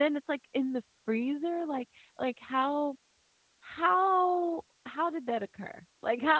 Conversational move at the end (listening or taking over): listening